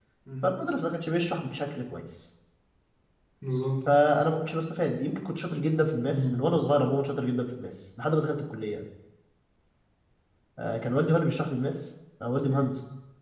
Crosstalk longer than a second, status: none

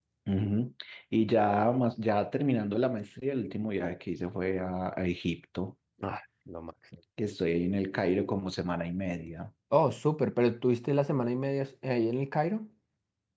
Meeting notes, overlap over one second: none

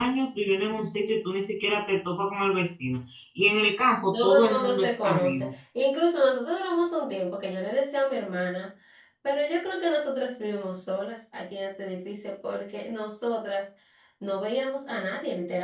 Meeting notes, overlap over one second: present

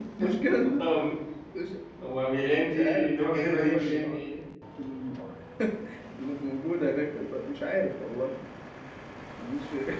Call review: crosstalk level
present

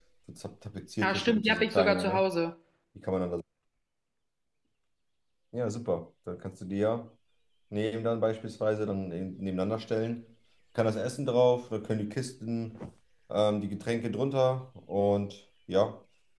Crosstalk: present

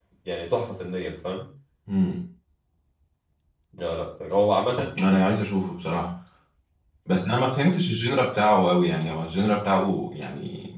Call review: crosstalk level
none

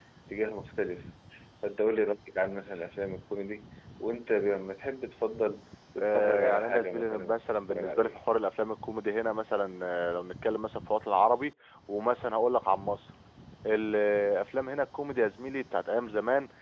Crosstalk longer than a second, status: present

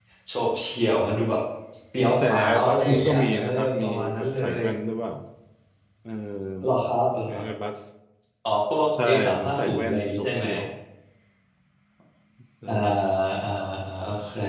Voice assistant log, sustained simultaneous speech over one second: present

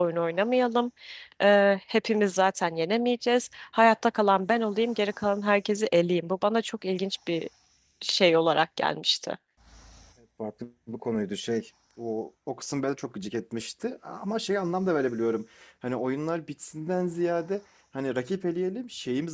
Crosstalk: none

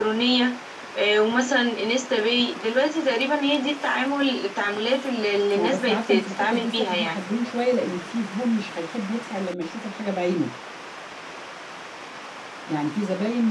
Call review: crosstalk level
present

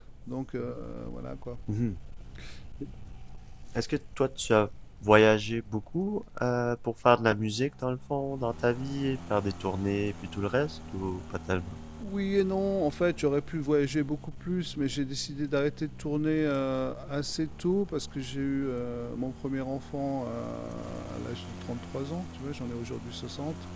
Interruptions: none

